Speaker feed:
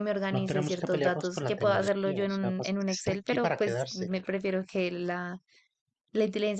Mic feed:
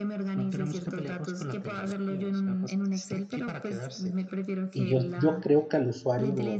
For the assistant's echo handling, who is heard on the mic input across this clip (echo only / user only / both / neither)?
both